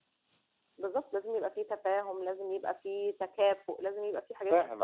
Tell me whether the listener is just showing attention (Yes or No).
No